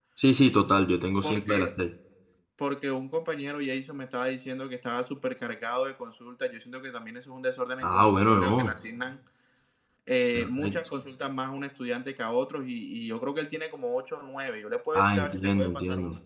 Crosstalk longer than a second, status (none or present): present